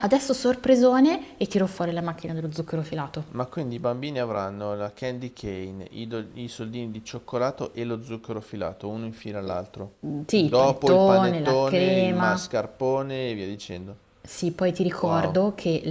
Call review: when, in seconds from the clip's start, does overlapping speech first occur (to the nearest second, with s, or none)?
10 s